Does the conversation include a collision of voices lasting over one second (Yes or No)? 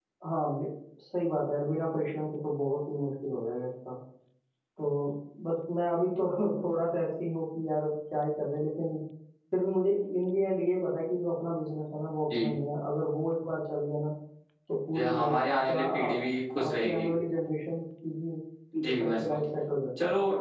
Yes